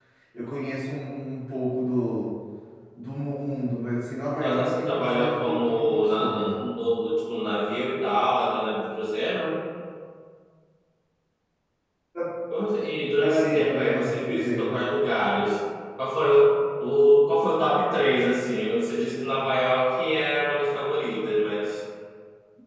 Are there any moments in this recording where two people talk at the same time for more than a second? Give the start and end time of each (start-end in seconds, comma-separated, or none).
4.4-6.7, 13.2-14.8